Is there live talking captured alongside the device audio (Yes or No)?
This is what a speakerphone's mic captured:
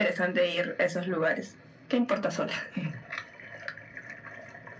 No